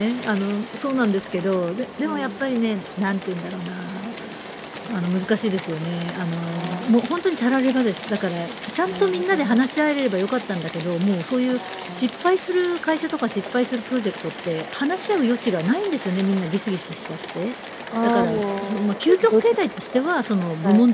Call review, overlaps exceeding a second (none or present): present